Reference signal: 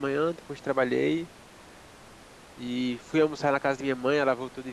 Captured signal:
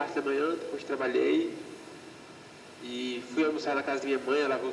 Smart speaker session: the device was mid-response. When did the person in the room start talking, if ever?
none

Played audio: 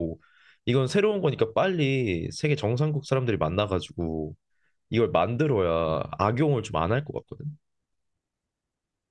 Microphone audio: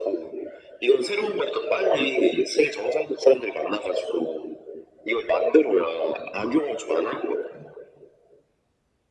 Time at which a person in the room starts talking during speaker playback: none

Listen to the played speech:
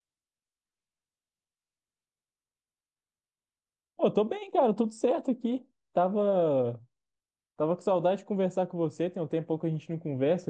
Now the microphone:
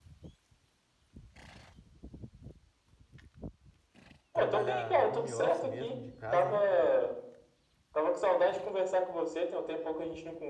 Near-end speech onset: 4.3 s

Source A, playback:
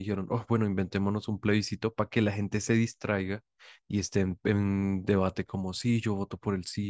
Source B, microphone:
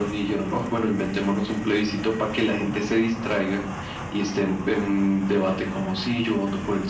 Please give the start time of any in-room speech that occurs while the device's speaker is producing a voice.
none

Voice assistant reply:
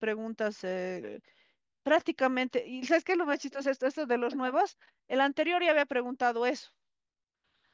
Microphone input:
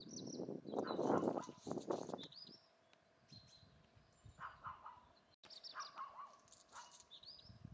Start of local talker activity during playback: none

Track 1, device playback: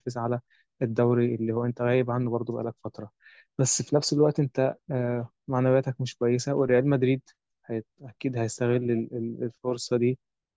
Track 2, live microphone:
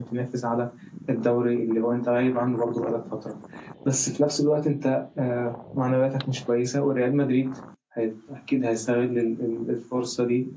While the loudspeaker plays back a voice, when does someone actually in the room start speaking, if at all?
none

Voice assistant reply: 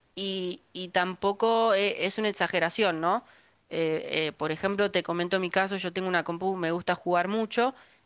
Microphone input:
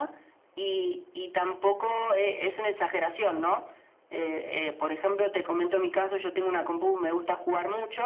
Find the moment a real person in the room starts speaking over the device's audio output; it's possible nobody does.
none

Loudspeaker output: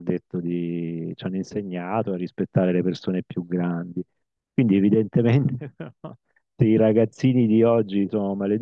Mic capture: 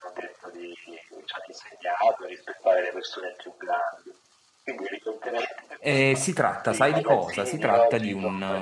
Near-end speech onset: 5.8 s

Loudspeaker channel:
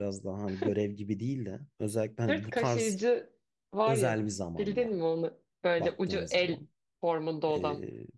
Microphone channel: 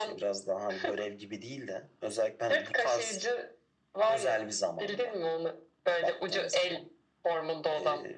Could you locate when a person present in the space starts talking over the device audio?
none

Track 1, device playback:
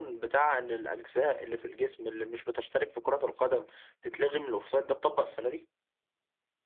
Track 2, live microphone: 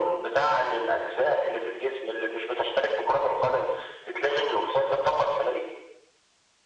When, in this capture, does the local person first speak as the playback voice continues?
none

